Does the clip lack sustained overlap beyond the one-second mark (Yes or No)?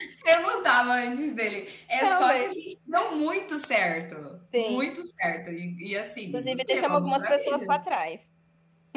No